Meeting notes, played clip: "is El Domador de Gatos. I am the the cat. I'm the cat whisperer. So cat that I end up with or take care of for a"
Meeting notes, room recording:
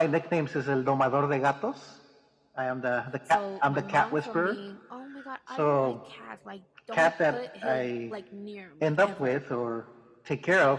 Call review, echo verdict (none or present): present